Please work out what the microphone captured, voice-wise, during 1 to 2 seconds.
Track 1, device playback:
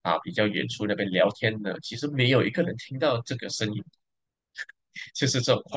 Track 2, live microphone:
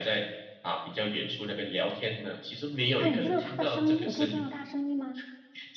echo only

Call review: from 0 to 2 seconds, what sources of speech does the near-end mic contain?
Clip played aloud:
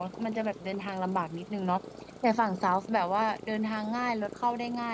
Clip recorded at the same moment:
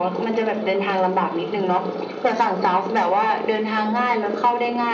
echo only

